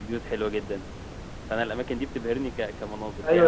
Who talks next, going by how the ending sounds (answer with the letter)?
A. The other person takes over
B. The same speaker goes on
A